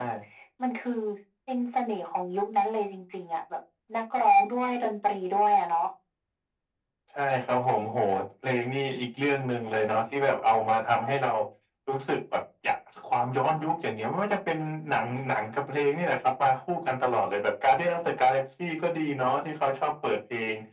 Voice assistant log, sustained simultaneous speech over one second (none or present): none